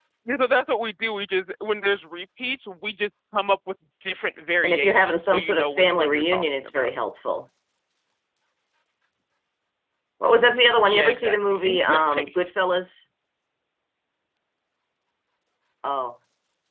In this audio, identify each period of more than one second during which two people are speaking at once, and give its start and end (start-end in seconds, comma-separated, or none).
4.6-6.9, 10.8-12.2